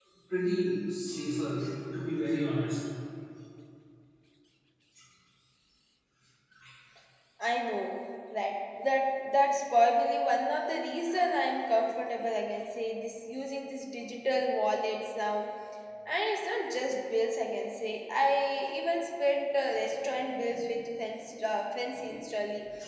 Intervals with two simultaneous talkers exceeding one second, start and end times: none

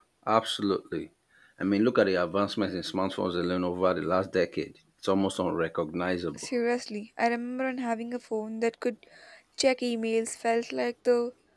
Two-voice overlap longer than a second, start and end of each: none

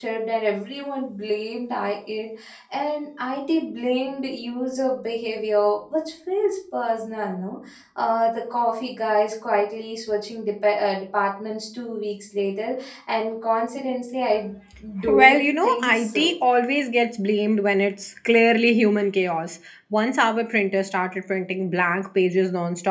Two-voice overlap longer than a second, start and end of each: 15.1-16.3

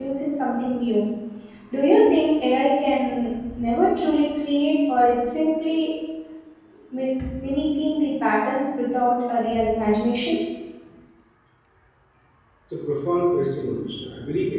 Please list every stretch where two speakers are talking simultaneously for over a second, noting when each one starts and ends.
none

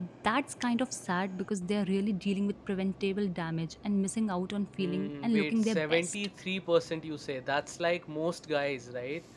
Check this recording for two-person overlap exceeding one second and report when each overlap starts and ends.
4.8-6.2

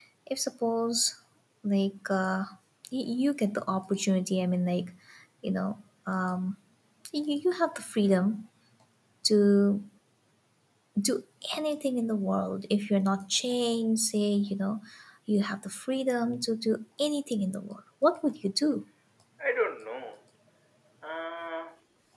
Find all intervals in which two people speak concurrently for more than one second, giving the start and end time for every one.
none

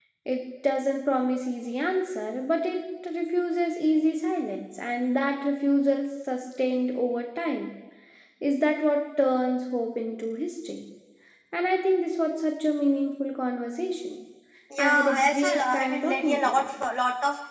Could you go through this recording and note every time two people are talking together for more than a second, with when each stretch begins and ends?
14.8-16.7

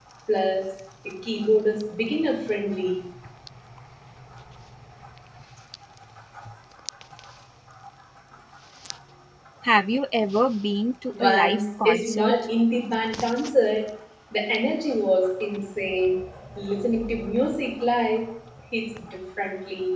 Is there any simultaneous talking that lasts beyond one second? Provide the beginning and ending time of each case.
11.1-12.3

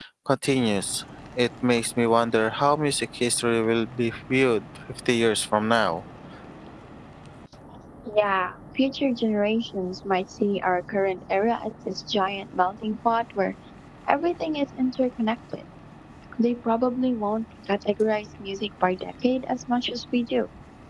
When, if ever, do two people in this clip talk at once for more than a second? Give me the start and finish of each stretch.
none

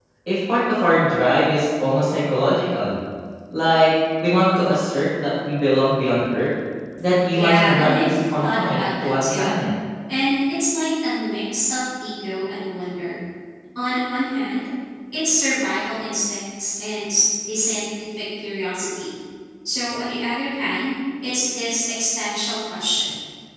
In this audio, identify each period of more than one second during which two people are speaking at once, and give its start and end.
7.3-9.5

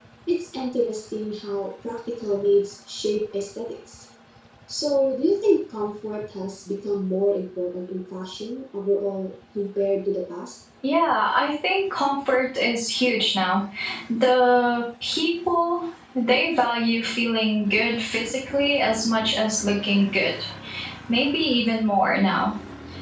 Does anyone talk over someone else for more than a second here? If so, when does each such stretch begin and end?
none

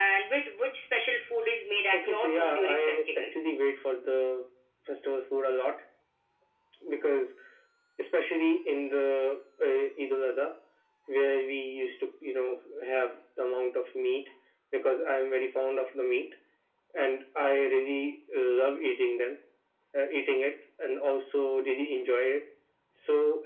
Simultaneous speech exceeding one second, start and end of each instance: 1.9-3.5

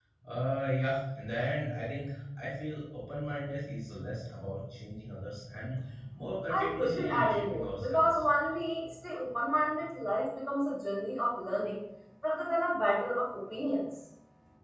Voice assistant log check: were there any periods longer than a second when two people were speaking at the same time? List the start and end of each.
6.5-8.3

